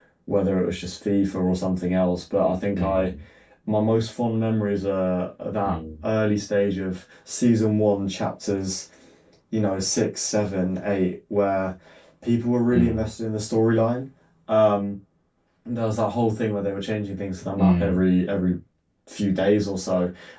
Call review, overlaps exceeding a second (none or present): none